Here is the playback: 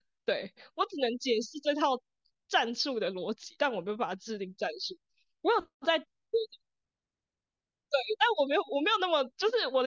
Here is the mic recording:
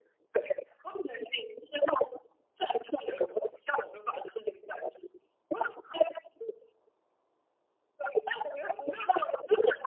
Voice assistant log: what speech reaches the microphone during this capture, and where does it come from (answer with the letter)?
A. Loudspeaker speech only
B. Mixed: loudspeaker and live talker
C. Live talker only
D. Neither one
A